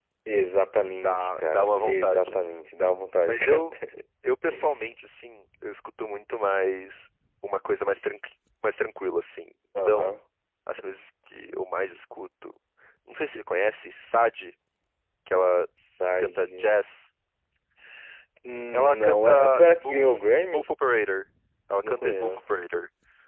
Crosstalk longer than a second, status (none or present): present